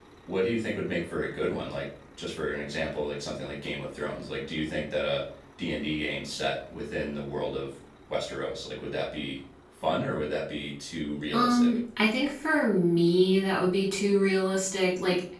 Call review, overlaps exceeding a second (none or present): none